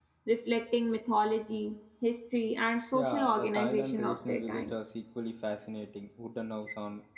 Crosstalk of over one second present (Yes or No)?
Yes